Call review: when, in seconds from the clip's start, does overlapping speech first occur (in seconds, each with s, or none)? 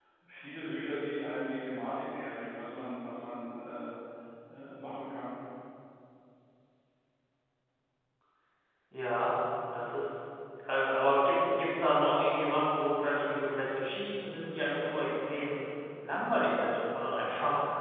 none